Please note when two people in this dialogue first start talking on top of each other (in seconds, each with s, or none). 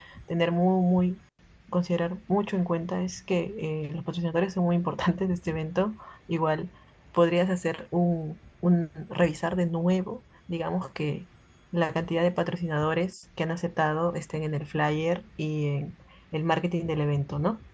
none